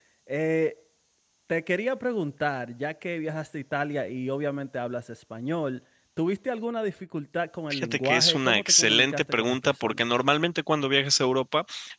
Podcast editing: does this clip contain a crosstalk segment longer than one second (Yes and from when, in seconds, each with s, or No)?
Yes, from 7.7 s